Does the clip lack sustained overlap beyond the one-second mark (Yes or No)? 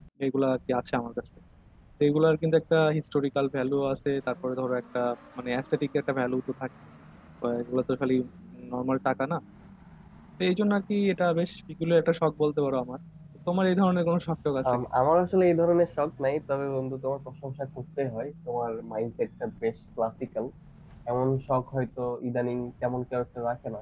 Yes